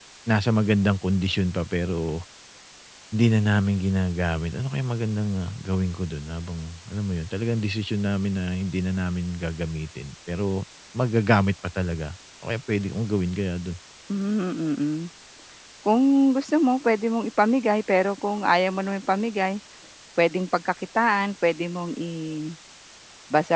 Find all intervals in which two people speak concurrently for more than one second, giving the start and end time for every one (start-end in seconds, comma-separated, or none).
none